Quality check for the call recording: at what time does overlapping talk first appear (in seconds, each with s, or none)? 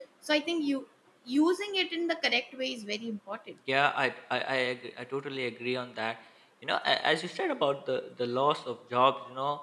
none